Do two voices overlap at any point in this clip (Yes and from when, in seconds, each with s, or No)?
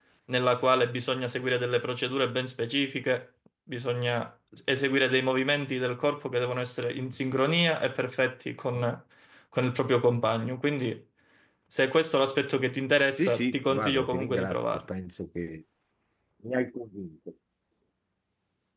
Yes, from 13.2 s